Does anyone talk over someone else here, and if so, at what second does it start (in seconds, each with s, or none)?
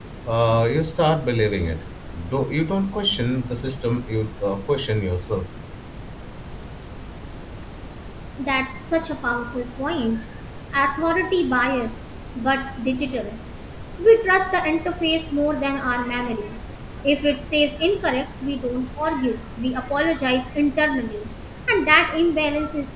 none